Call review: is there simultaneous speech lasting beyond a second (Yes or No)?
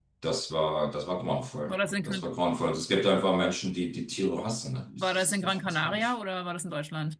Yes